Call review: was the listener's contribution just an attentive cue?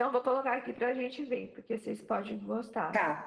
No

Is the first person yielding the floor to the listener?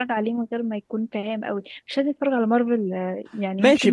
Yes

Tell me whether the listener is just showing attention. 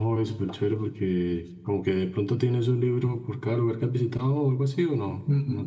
No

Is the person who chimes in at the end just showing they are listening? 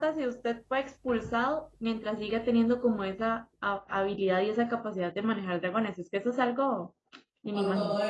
No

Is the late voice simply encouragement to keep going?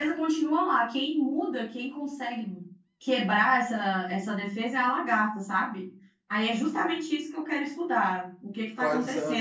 No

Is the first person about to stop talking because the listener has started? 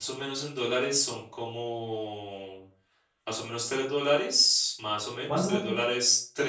No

